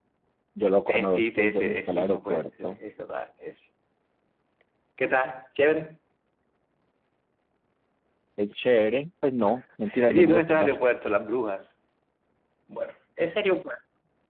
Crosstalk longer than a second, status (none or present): present